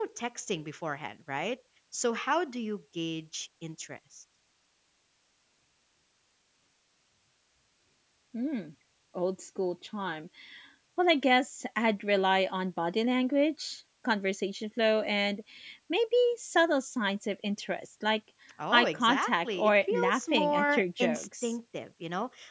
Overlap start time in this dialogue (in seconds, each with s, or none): 18.7 s